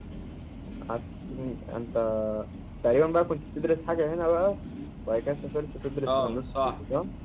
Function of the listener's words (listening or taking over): taking over